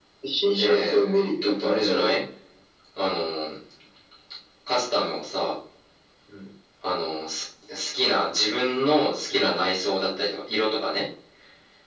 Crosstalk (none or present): present